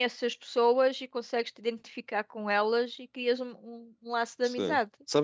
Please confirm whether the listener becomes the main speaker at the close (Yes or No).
Yes